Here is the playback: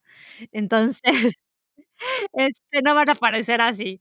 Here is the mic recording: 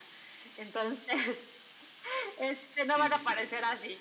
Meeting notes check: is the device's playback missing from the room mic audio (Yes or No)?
No